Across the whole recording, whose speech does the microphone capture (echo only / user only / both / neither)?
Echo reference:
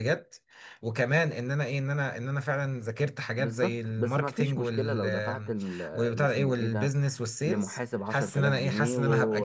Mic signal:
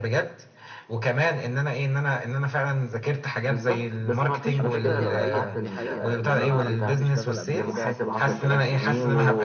both